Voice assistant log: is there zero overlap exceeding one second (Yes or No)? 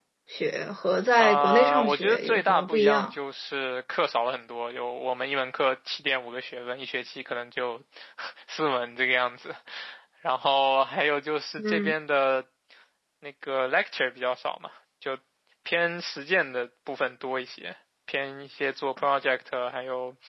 No